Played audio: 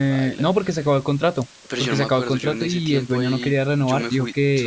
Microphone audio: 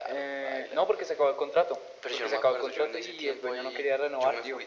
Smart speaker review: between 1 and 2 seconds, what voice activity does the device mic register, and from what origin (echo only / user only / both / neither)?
echo only